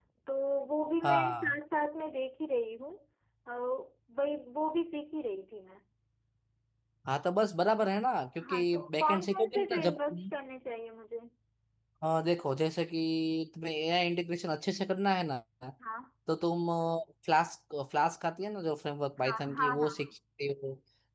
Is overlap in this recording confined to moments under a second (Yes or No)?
No